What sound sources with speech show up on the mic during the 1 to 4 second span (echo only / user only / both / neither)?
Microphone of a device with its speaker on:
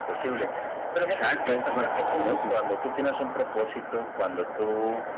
both